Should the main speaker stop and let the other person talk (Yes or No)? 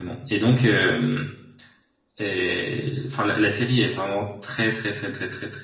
No